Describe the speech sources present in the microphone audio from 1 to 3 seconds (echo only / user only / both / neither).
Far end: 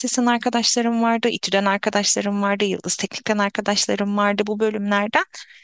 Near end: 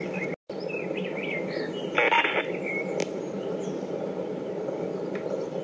neither